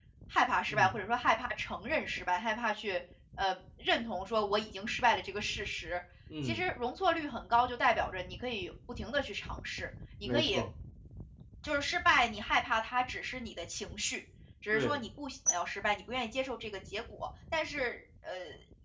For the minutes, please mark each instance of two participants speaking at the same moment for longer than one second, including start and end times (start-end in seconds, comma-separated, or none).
none